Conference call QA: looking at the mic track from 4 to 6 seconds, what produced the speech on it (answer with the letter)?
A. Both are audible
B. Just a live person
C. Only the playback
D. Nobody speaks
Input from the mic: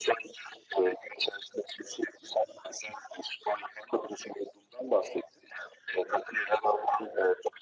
C